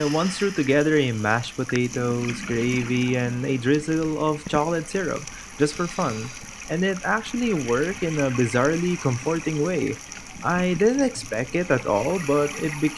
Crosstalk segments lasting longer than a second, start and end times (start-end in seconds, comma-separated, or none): none